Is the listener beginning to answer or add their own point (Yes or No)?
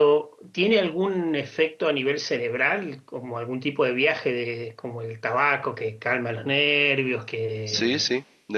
Yes